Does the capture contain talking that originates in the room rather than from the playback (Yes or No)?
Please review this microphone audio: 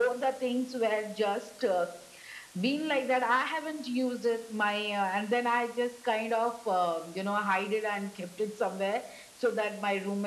No